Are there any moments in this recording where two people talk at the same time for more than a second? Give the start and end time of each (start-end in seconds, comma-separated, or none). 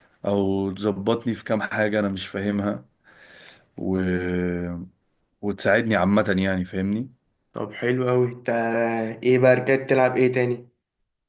none